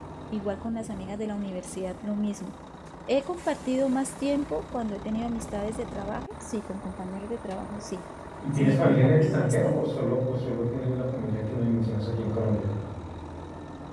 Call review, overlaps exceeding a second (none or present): present